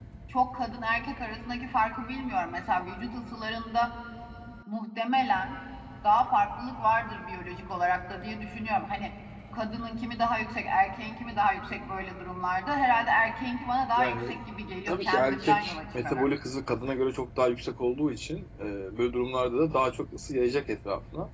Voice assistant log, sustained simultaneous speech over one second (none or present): present